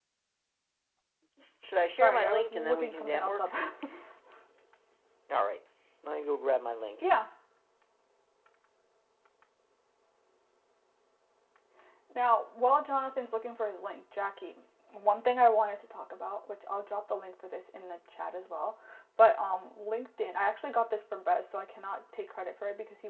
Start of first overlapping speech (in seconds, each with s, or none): 1.9 s